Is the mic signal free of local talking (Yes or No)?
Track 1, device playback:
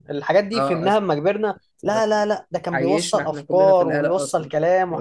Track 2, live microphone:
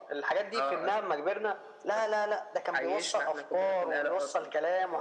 Yes